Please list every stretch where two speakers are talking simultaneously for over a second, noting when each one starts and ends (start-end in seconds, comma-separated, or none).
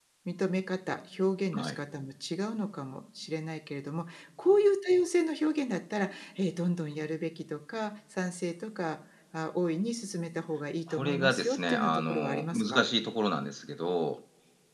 10.9-12.8